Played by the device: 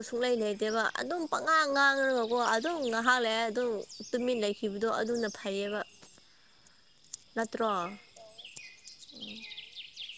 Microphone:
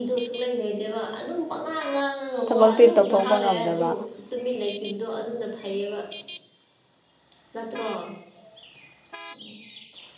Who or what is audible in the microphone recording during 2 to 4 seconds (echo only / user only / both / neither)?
both